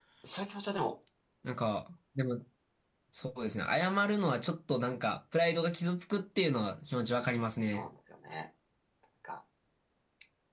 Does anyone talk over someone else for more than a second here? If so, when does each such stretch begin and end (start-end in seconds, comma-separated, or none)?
none